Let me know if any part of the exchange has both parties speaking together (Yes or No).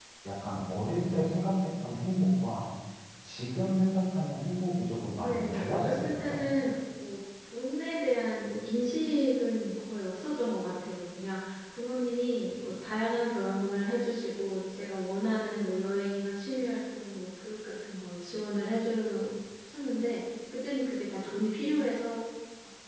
Yes